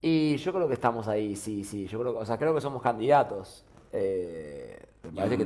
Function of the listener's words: listening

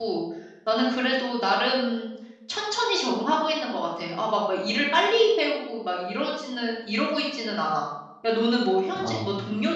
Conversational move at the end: listening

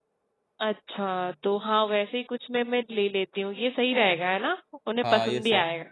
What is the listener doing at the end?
taking over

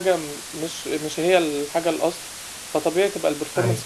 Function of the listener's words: listening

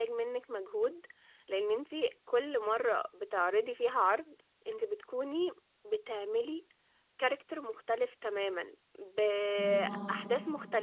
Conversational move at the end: listening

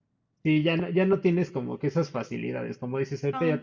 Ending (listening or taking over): listening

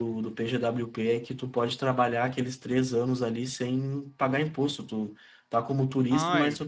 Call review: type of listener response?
listening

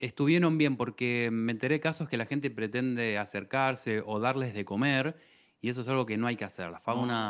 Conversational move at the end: listening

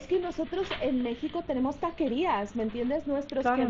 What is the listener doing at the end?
listening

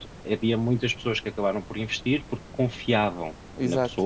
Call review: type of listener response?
listening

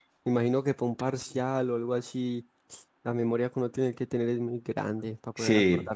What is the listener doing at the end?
taking over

